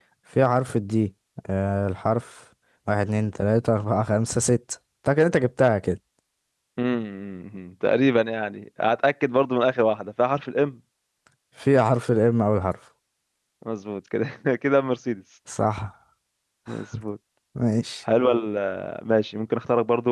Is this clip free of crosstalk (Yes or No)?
Yes